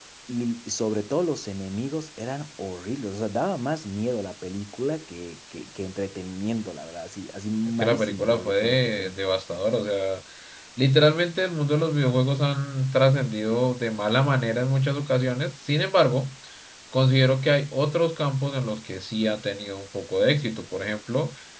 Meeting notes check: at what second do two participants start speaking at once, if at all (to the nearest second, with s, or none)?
8 s